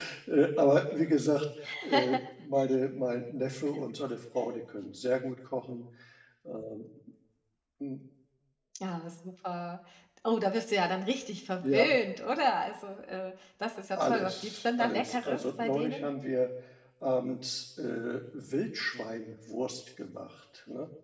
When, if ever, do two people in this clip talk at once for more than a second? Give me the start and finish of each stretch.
14.0-16.1

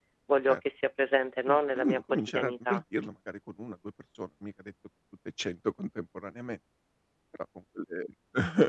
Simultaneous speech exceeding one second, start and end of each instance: 1.5-2.8

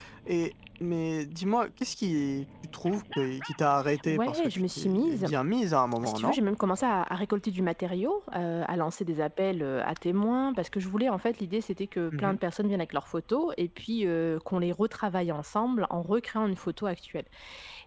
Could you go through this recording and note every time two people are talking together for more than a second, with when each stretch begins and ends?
4.1-5.3

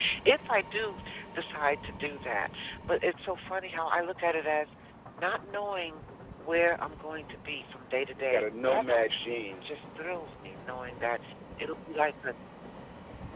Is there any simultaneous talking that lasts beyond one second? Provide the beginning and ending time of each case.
8.2-9.7

